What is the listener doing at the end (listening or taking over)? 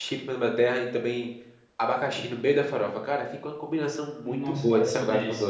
taking over